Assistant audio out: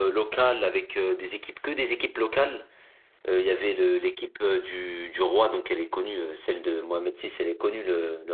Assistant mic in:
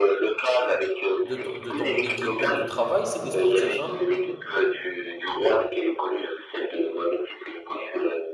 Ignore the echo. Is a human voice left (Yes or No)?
Yes